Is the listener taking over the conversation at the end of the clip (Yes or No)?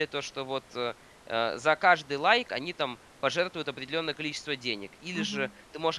No